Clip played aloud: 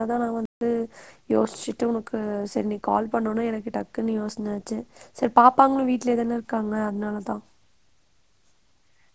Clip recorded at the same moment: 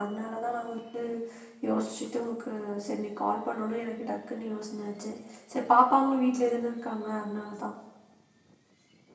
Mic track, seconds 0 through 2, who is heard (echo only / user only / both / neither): echo only